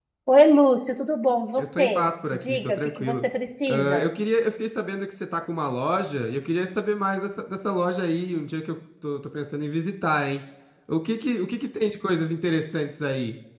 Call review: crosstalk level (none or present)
present